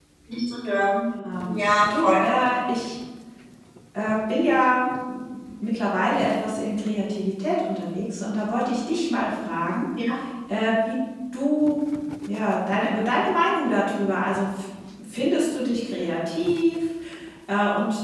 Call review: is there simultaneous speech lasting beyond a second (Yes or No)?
No